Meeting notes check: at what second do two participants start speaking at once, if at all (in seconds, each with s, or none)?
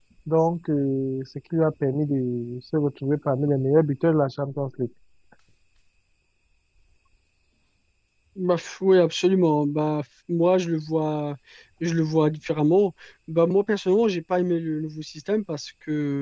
none